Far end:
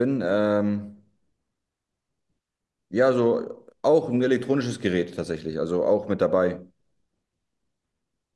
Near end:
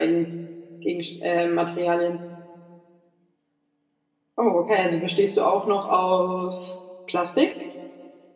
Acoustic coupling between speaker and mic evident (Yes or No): No